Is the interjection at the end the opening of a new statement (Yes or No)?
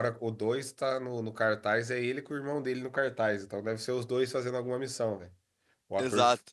No